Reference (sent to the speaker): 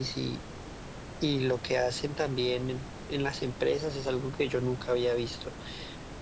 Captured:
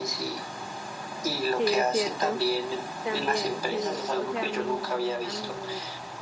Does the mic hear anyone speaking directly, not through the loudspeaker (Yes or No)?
Yes